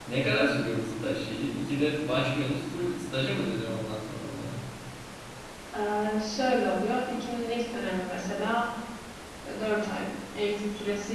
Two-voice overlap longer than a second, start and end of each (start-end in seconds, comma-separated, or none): none